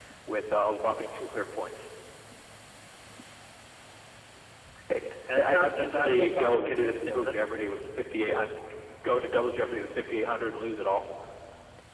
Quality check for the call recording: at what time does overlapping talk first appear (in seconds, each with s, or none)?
5.3 s